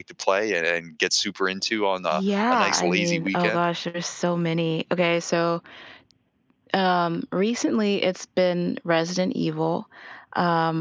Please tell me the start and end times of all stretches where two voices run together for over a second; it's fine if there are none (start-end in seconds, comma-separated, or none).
2.1-3.6